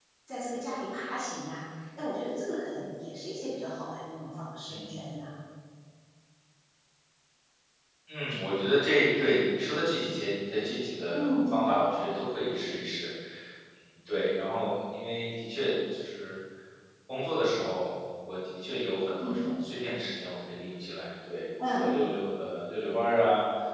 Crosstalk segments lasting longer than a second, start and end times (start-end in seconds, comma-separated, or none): none